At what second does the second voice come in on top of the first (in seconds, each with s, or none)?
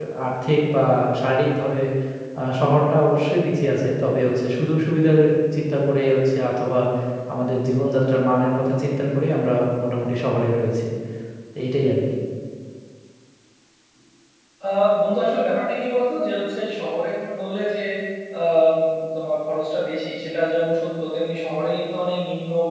none